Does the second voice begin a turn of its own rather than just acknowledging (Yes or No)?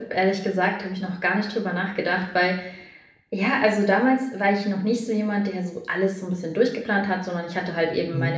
No